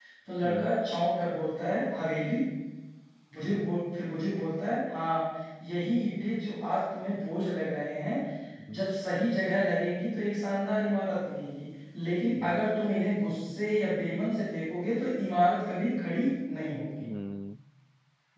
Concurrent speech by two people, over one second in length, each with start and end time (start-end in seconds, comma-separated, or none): none